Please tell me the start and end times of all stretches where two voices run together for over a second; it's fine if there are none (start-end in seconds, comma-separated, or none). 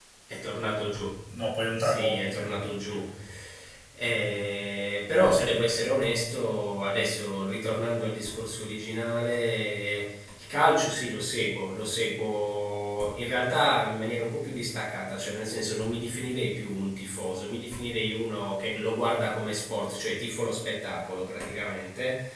1.7-3.0